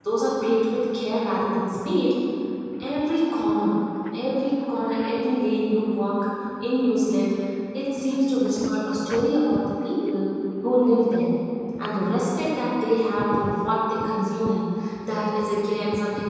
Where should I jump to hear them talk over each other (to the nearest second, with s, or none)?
none